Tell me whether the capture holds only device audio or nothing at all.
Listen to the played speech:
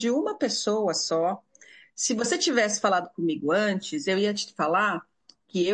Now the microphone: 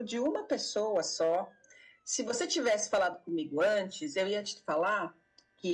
Yes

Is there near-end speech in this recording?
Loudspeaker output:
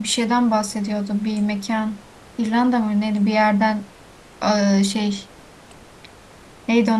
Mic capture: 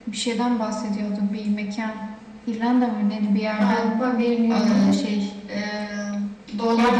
Yes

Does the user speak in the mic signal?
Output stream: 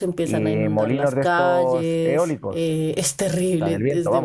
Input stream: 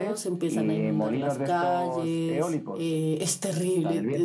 No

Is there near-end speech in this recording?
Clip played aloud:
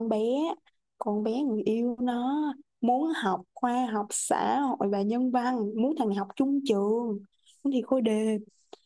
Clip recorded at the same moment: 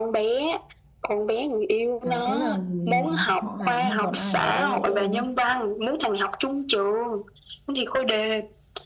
Yes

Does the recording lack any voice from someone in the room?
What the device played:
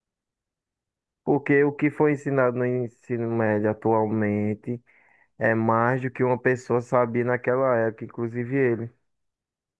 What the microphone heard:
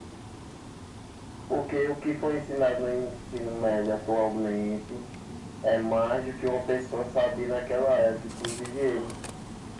Yes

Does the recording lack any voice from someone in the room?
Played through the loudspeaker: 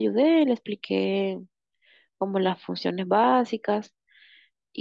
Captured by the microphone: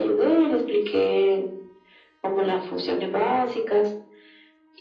Yes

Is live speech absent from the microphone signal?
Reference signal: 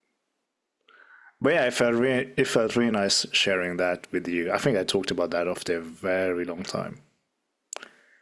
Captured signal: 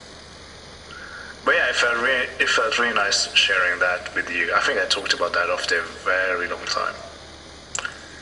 Yes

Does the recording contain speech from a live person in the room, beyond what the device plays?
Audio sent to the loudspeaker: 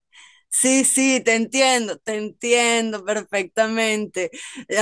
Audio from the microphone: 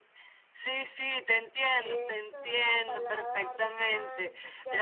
Yes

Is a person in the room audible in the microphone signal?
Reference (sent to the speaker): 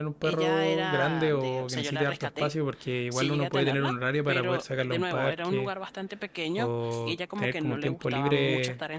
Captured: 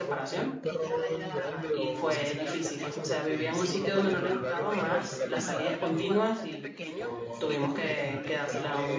Yes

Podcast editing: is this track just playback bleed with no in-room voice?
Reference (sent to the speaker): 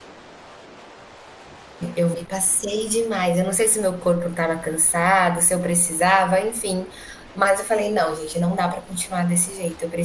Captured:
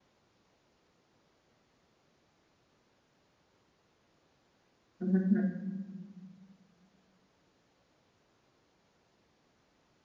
No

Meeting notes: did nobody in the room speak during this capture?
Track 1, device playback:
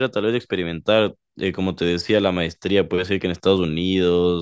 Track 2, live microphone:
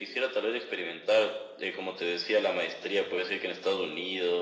Yes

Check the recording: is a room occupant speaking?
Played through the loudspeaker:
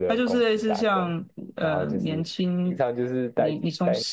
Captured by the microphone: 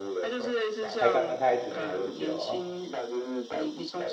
Yes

